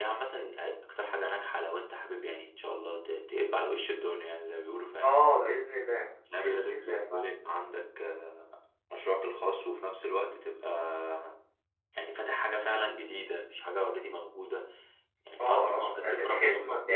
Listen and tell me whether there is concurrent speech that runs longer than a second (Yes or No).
Yes